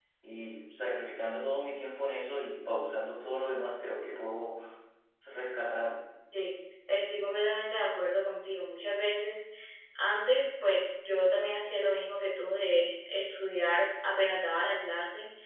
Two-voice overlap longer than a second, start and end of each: none

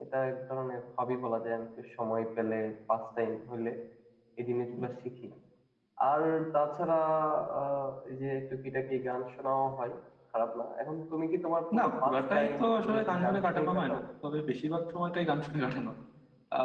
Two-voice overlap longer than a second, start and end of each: 11.8-14.0

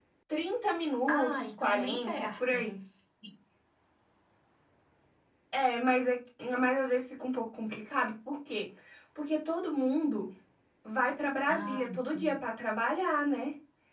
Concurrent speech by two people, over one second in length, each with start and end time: 1.1-2.6

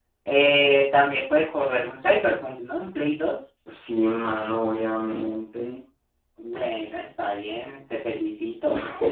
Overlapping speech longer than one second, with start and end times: none

